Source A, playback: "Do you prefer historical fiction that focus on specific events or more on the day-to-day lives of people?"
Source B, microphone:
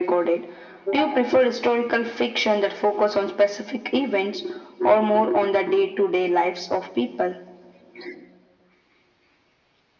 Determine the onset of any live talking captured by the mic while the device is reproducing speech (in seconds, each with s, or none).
none